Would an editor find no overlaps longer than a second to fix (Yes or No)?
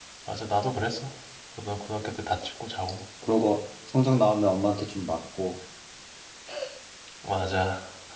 Yes